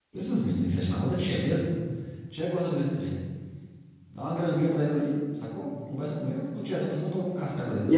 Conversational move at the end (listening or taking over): taking over